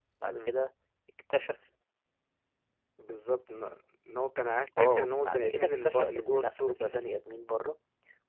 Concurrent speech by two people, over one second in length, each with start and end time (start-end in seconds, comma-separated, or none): 4.8-7.0